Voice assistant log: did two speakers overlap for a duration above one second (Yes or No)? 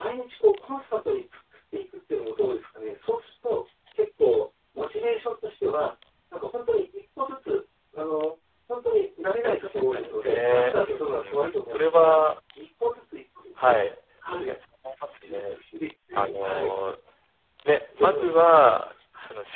Yes